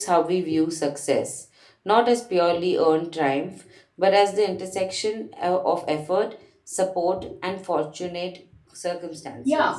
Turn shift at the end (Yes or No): Yes